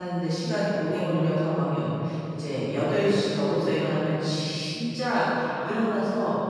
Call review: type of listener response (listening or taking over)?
listening